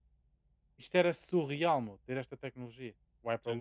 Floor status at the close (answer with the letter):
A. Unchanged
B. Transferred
B